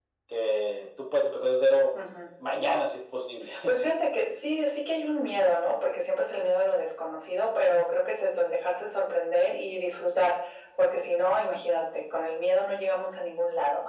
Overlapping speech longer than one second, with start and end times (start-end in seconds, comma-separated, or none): none